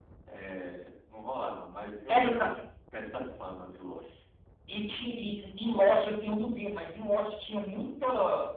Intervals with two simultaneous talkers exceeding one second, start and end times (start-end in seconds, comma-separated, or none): none